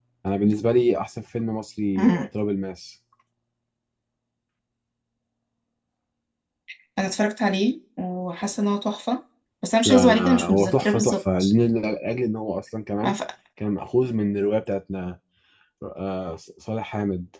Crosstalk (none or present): present